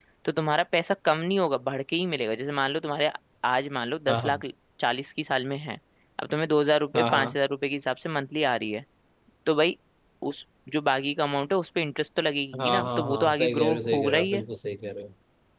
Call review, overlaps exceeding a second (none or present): present